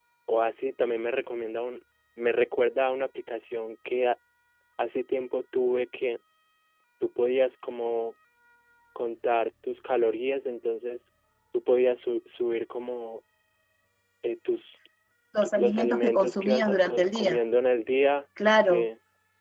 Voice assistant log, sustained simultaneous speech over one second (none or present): present